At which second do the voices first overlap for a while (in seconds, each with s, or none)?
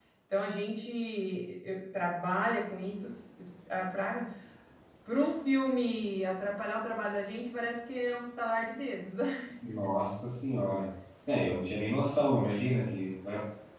none